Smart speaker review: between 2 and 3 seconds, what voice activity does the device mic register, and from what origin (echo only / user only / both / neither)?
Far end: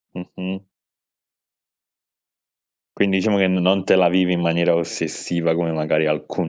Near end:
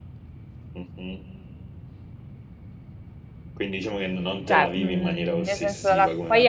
neither